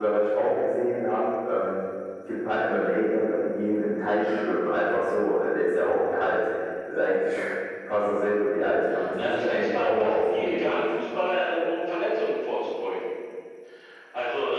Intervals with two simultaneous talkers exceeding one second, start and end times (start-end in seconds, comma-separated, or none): 9.1-10.7